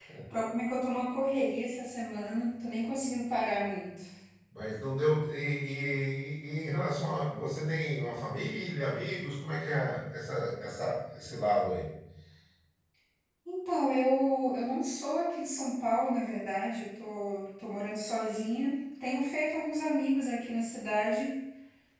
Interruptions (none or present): none